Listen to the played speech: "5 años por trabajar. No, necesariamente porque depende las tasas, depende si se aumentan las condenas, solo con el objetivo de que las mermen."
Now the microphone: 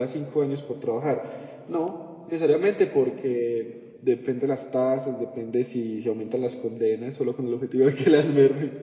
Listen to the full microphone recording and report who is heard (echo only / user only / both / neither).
echo only